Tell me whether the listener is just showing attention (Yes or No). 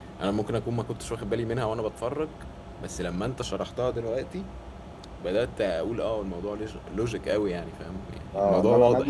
No